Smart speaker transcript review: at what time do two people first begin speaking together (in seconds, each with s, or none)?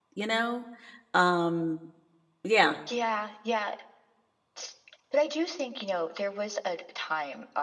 none